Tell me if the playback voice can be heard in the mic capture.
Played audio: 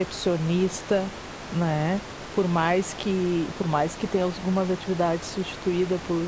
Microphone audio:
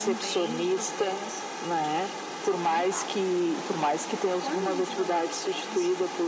Yes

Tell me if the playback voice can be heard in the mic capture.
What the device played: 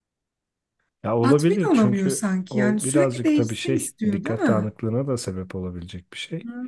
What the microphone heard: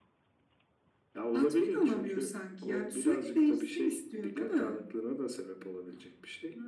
Yes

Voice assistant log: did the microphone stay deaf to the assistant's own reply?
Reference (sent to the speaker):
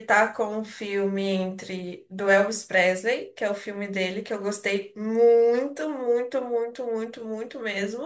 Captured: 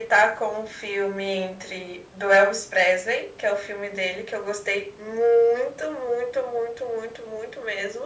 No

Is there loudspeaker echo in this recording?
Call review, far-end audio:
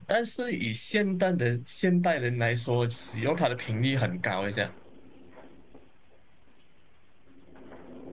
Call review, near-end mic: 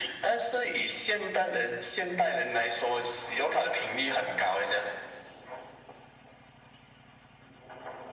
Yes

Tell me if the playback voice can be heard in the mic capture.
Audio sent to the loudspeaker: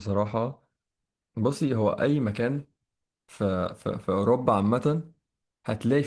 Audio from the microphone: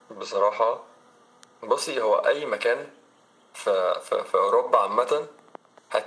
Yes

